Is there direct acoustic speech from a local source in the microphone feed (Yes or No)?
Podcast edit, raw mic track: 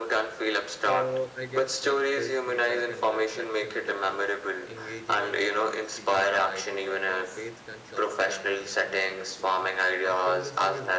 Yes